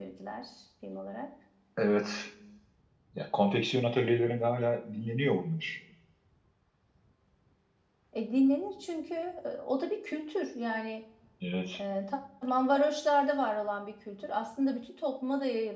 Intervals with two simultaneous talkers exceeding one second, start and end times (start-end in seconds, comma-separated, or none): none